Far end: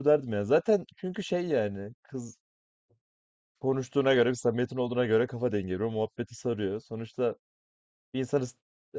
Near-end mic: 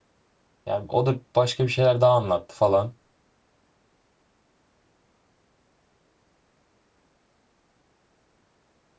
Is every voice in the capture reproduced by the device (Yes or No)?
No